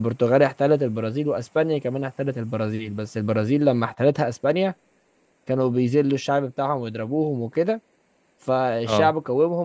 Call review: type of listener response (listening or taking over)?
listening